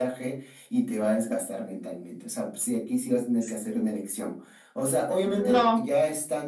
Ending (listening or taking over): listening